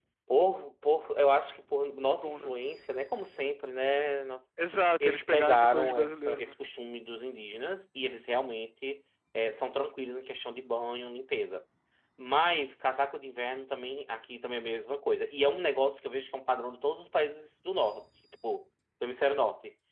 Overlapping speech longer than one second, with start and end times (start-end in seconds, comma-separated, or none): 5.0-6.6